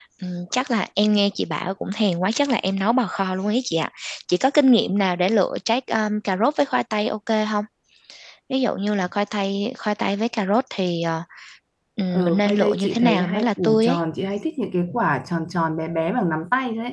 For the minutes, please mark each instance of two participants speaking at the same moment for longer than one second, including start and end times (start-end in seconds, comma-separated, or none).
12.1-14.0